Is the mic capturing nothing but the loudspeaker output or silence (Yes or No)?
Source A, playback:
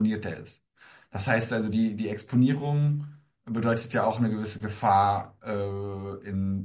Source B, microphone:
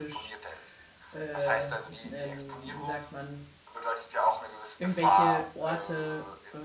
No